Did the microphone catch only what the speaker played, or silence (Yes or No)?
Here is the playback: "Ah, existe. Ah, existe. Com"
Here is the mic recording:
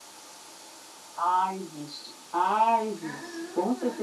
No